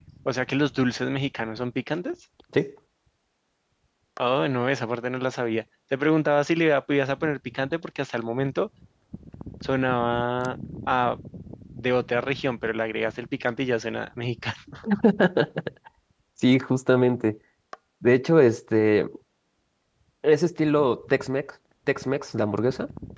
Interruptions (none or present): none